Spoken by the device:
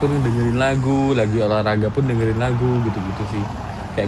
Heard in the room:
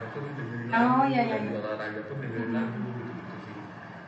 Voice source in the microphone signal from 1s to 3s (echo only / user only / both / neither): both